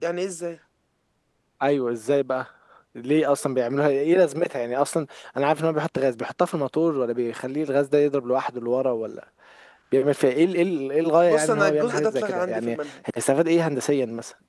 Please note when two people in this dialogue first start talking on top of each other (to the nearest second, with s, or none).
11 s